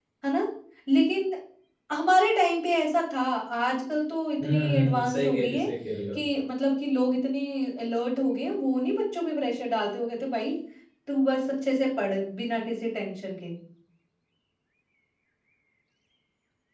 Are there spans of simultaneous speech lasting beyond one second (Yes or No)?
Yes